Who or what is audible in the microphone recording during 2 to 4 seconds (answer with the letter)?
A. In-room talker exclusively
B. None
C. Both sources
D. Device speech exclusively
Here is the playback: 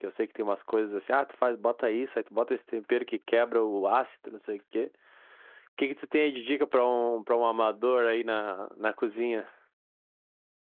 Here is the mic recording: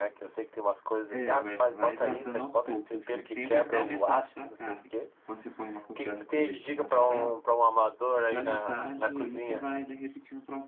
C